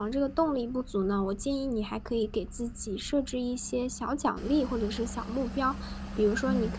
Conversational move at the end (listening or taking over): listening